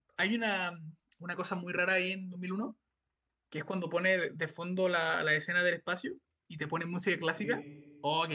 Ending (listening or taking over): listening